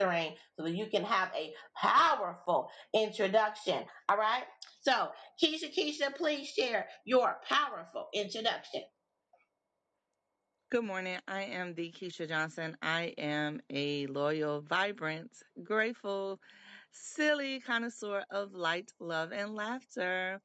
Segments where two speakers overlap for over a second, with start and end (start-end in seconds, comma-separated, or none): none